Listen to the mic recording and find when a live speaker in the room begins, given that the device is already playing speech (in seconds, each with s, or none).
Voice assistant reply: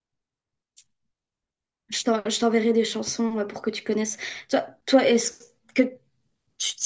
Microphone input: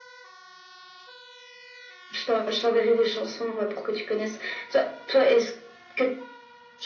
none